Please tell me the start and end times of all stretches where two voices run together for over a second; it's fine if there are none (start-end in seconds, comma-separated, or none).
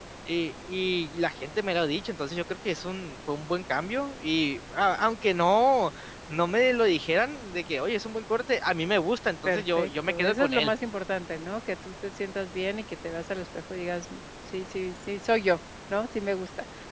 9.4-10.7